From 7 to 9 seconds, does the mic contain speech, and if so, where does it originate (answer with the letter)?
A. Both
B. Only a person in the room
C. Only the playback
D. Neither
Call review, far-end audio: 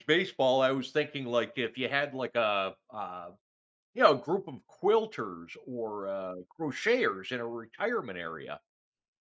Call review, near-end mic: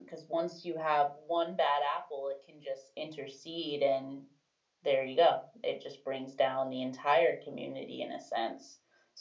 B